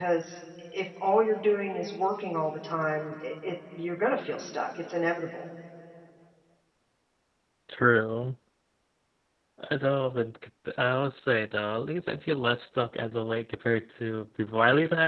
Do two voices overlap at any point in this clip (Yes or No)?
No